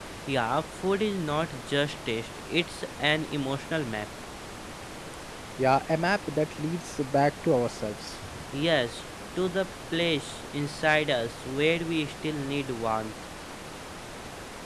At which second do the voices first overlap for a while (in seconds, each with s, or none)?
none